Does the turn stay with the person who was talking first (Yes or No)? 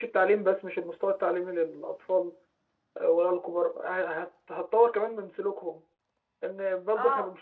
Yes